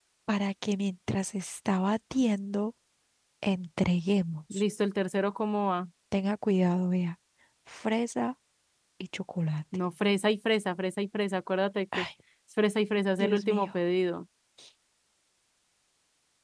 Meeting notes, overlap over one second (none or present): none